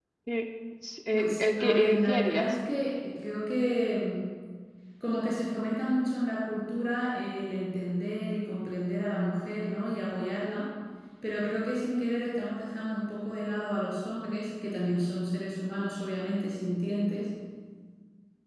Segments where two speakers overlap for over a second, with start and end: 1.1-2.5

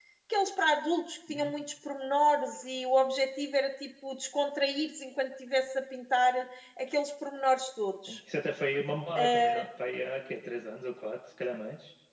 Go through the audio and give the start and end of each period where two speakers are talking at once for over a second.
none

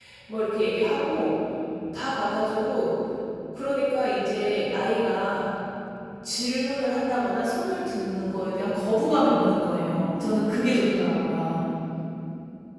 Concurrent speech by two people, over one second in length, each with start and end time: 8.7-11.2

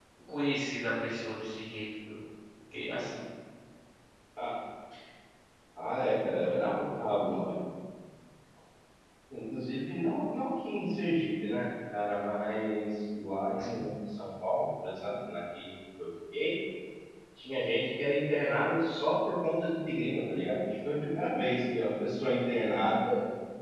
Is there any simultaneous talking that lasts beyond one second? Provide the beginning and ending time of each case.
6.3-7.5

